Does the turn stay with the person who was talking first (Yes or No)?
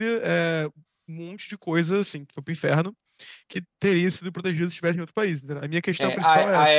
No